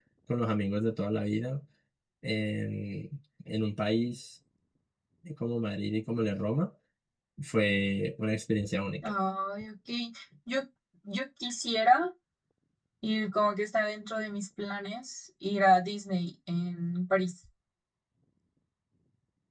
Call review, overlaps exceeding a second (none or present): none